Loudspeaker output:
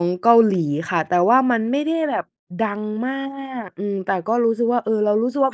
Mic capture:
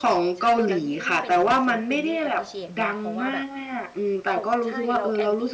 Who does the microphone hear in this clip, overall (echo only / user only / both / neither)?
both